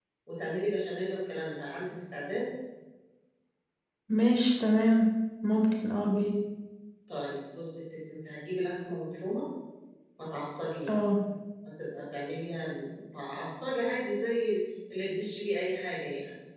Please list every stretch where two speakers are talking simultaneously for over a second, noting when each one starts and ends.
none

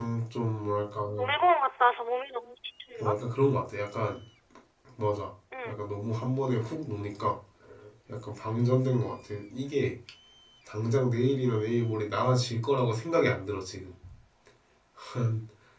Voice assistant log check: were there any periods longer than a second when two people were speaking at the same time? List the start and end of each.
none

